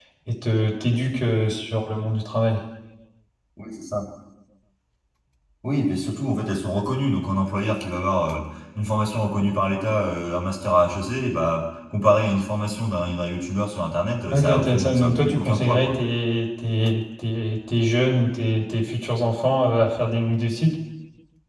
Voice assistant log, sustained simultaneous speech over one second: present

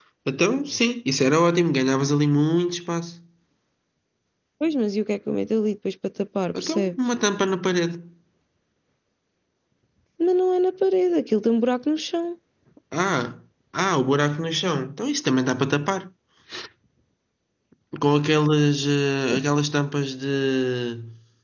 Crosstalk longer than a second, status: none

